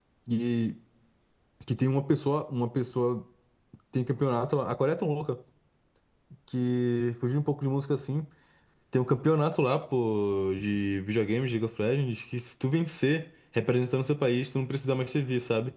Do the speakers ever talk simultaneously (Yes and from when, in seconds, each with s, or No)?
No